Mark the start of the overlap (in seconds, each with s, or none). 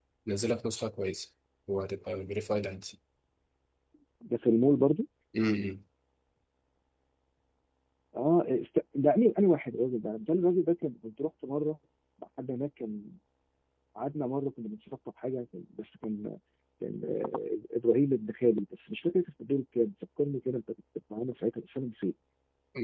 none